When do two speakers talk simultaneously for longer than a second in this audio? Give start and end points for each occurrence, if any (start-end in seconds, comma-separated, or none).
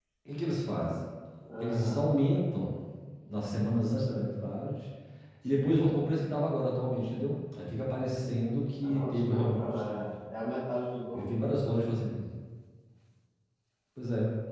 8.8-10.1